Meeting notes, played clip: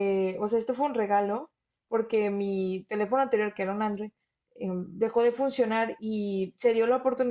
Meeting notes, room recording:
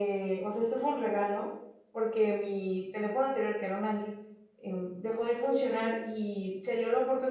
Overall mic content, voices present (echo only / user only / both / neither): echo only